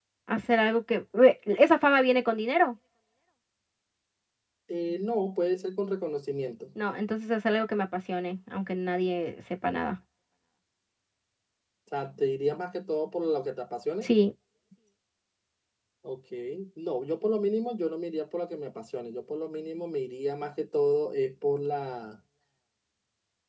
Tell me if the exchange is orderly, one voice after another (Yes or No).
Yes